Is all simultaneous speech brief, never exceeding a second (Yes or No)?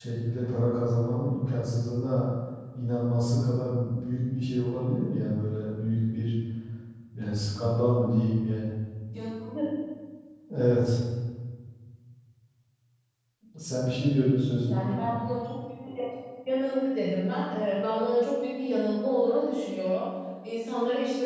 Yes